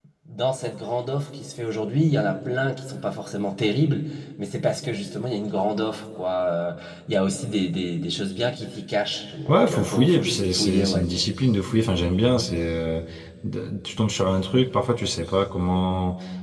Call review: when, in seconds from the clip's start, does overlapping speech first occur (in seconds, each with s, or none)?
9.5 s